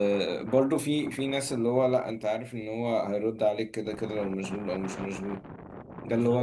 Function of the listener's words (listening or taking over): listening